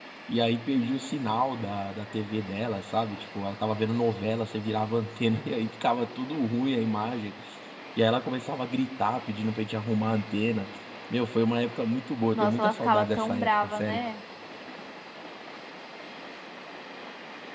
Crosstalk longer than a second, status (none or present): present